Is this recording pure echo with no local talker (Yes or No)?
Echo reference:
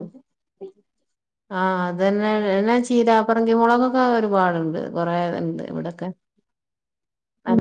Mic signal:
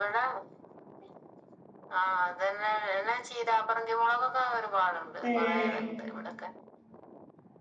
No